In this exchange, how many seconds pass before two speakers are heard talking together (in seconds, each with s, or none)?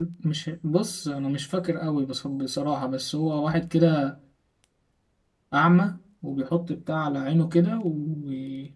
none